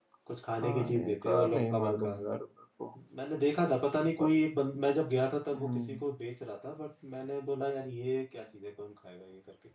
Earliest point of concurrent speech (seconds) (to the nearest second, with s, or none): 1 s